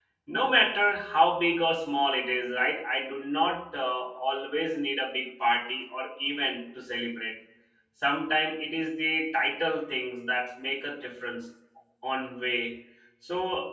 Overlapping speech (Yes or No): No